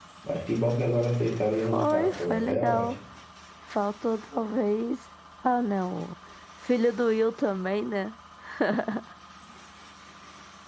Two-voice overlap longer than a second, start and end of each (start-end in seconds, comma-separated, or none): 1.6-3.0